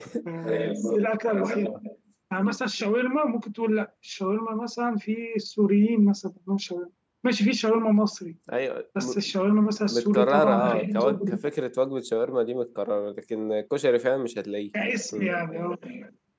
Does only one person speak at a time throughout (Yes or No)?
No